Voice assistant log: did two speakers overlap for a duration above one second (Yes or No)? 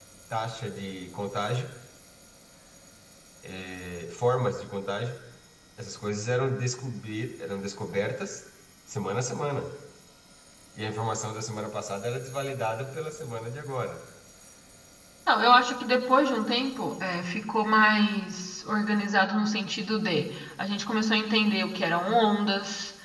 No